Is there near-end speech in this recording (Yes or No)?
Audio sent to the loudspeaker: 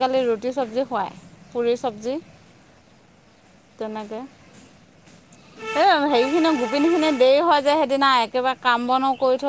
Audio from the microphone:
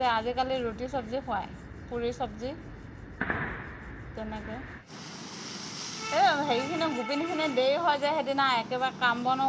No